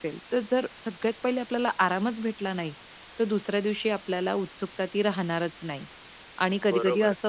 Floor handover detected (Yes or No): Yes